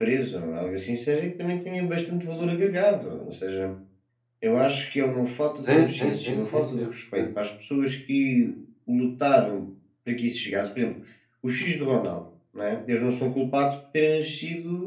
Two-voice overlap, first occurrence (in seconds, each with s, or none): 5.7 s